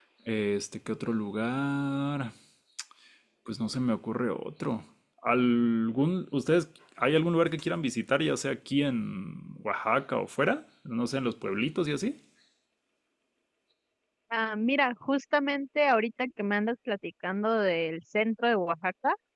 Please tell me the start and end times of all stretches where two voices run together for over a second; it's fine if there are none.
none

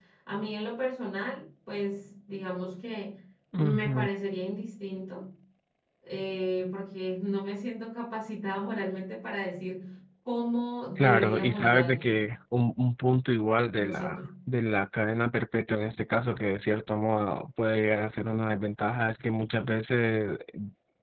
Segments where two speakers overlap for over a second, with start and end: 11.0-12.2

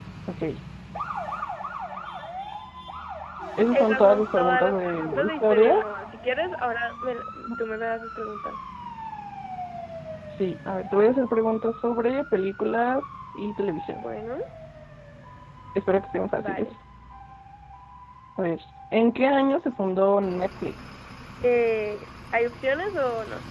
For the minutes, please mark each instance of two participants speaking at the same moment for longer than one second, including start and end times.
3.7-5.7

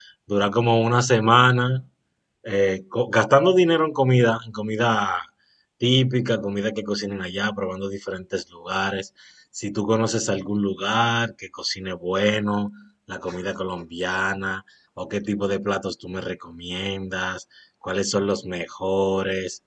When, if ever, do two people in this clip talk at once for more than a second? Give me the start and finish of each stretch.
none

